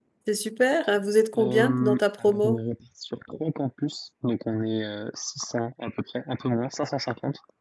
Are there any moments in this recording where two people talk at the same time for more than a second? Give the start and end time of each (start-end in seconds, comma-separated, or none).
1.4-2.6